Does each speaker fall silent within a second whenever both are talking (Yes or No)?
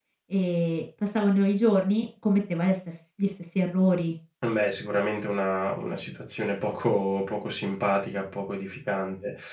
Yes